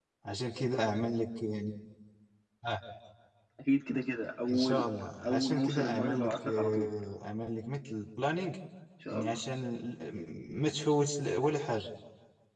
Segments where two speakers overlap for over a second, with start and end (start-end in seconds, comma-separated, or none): 5.3-6.9